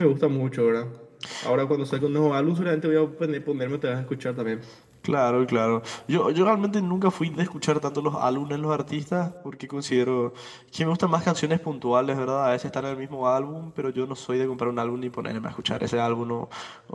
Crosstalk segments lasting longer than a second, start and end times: none

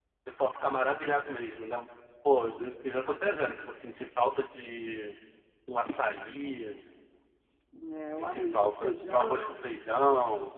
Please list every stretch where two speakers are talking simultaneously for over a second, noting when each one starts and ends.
8.2-9.7

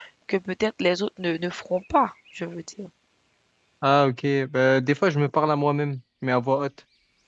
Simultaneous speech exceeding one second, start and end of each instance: none

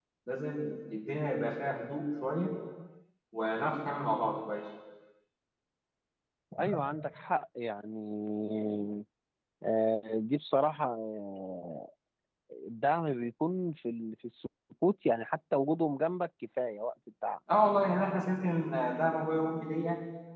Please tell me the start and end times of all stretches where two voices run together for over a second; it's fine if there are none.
none

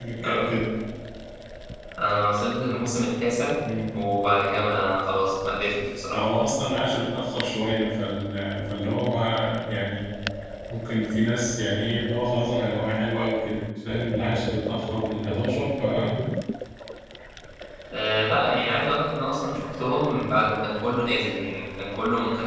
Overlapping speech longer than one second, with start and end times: none

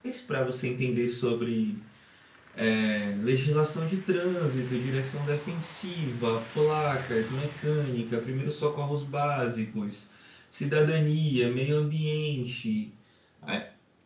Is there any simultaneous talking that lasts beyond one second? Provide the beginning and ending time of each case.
none

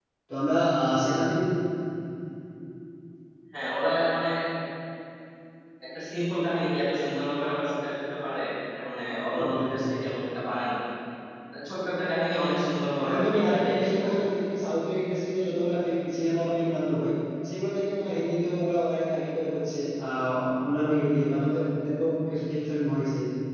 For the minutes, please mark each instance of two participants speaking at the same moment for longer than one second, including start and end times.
13.0-14.3

